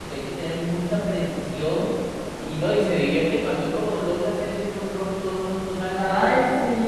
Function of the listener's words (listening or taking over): taking over